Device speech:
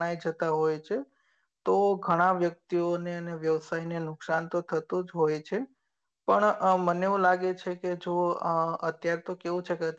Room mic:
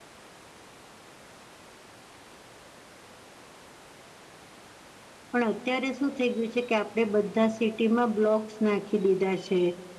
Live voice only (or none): પણ અત્યારે શું થઈ ગયું છે, કે આપણે બધા સિટીમાં બ્લોક્સ નાખી દીધા છે.